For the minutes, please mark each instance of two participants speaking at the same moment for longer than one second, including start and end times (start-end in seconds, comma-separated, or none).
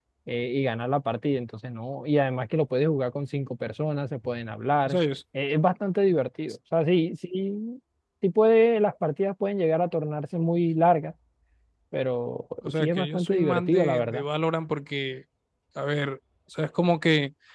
12.8-14.2